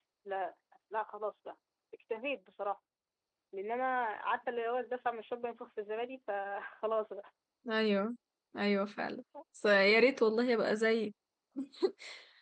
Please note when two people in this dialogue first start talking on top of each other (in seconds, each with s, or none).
none